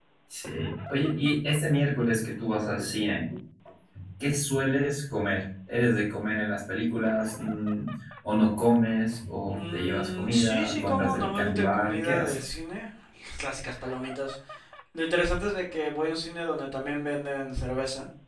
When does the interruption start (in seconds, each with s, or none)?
9.5 s